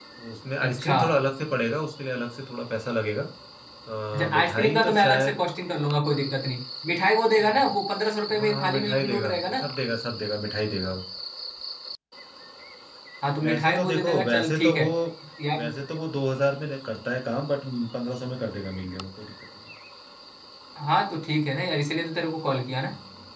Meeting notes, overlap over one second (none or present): present